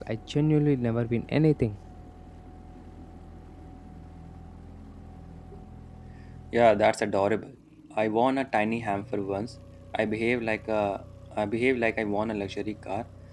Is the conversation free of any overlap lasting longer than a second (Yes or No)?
Yes